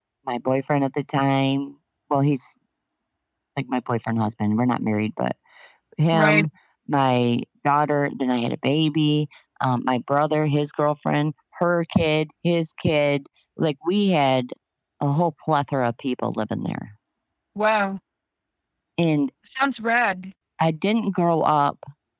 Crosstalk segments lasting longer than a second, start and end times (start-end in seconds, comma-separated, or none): none